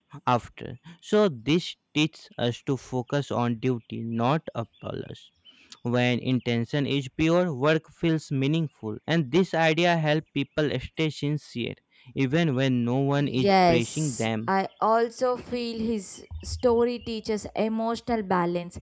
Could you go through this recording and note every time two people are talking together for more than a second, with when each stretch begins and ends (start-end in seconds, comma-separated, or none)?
13.2-14.5